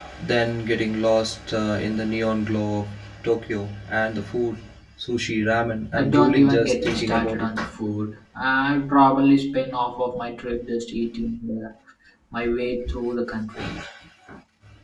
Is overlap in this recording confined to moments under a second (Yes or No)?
No